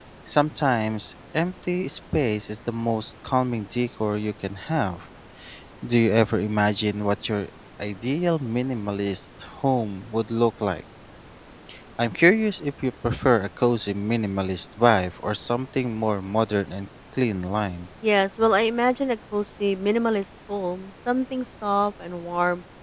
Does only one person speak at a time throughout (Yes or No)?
Yes